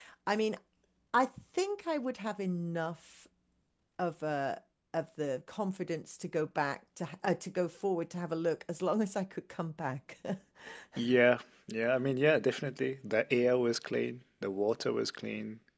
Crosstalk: none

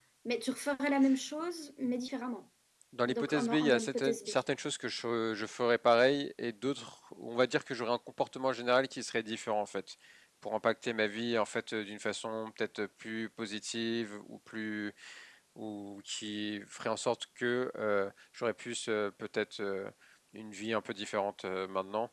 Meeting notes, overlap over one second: present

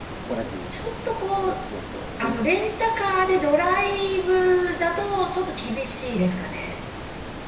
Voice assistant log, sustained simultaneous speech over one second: none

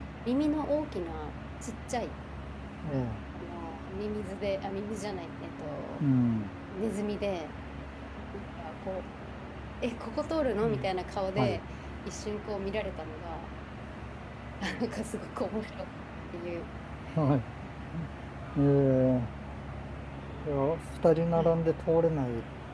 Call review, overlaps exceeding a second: none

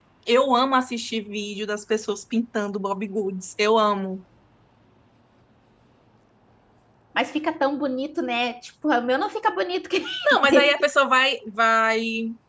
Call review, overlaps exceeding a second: none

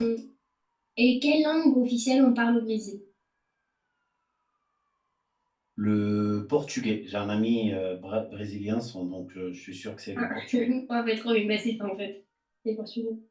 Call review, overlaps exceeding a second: none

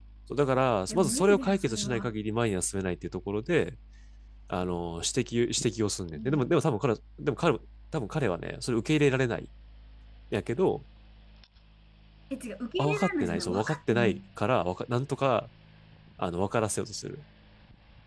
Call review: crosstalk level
present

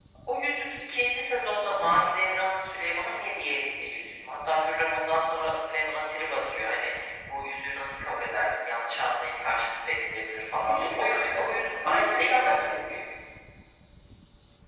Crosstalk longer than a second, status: present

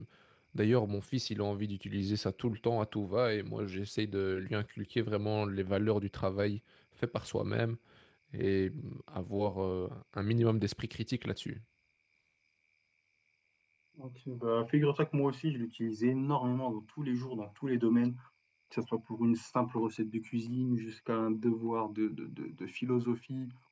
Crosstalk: none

